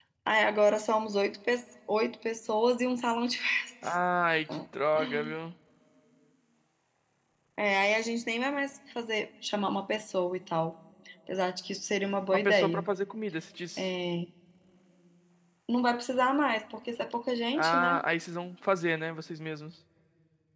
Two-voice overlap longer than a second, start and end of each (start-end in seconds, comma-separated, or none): none